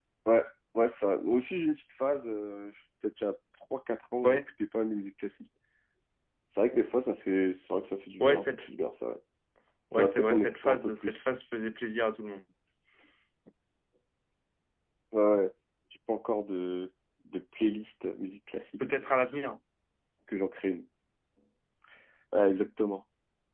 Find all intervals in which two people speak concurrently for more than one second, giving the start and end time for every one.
9.9-11.3

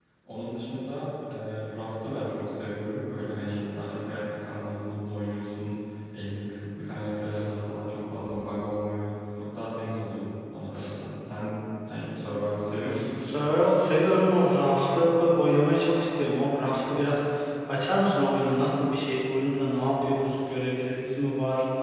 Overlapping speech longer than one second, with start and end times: none

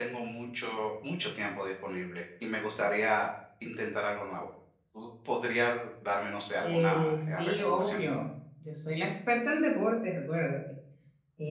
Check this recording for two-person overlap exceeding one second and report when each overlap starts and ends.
6.6-8.0

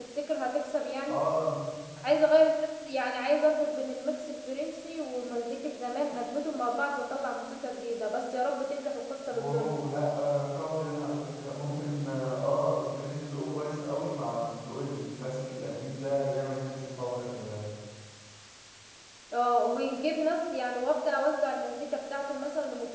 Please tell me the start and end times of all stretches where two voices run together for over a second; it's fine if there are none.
none

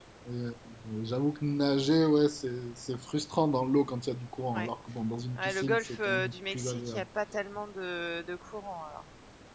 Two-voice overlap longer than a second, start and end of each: 5.4-7.0

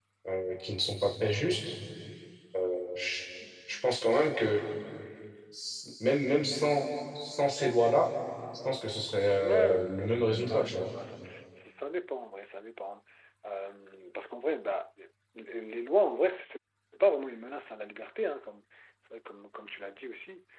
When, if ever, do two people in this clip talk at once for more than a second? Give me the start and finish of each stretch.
9.3-10.9

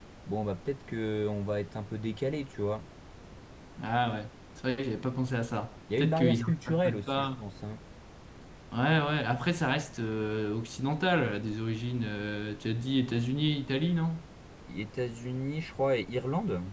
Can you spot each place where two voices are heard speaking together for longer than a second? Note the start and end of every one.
6.0-7.3

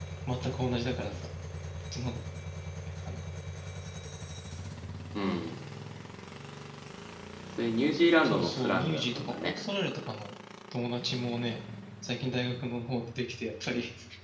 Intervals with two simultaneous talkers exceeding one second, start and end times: 8.2-9.6

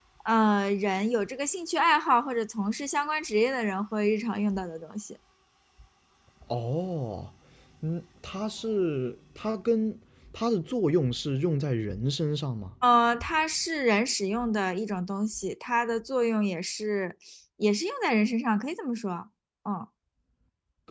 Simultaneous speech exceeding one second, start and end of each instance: none

